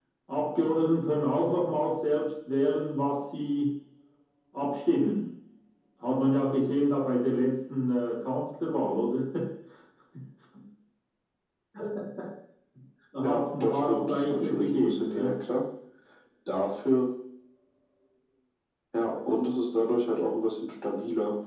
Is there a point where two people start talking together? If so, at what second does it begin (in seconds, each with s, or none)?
13.2 s